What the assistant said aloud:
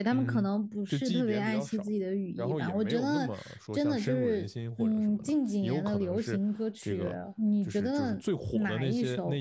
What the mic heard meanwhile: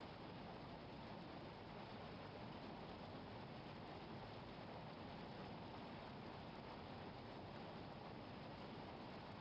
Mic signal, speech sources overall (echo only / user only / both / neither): neither